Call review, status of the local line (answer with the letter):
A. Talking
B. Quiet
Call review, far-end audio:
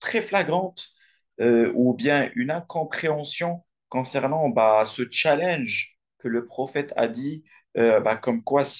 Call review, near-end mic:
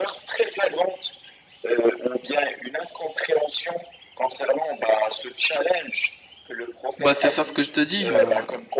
A